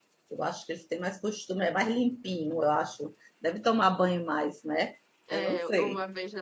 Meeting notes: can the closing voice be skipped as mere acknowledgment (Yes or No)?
No